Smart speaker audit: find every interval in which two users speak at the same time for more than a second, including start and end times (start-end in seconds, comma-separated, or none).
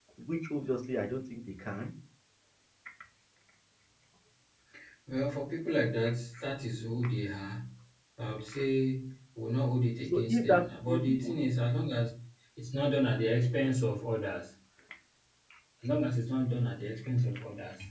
10.1-11.3